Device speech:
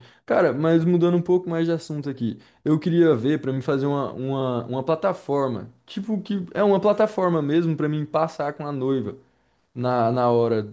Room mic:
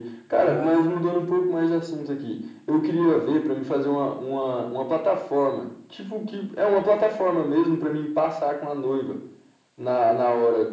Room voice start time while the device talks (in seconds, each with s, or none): 0.4 s